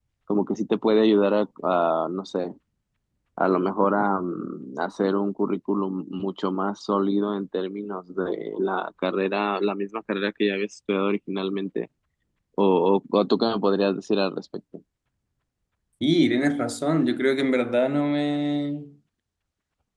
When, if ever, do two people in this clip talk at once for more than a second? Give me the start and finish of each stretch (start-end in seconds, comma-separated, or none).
none